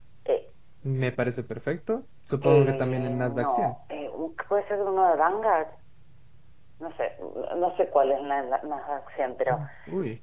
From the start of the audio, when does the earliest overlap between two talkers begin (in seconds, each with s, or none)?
2.4 s